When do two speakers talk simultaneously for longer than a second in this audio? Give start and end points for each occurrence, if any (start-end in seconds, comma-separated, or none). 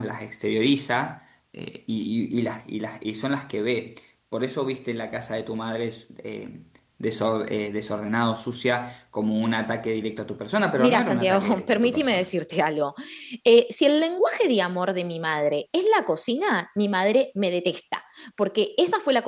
10.8-12.2